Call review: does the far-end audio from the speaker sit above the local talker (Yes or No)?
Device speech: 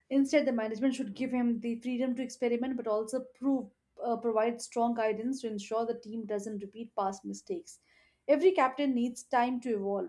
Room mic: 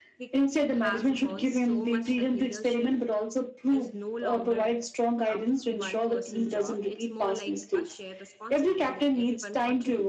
Yes